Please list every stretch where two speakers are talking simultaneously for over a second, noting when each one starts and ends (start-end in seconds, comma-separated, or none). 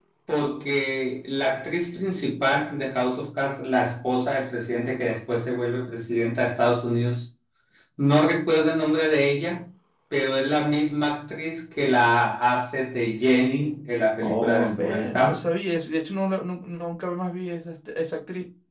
14.2-15.4